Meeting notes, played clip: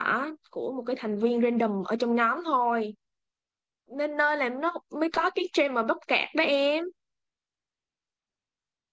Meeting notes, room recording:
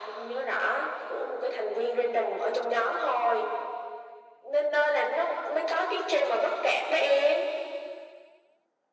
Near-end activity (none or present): none